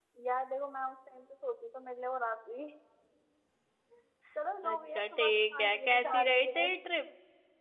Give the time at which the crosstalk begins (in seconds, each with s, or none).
4.7 s